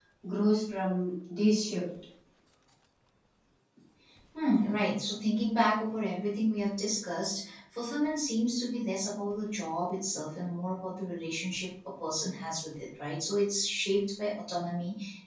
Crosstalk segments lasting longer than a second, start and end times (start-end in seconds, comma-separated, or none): none